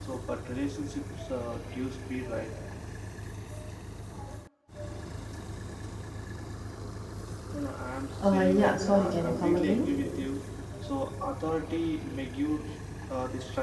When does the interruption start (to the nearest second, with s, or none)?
8 s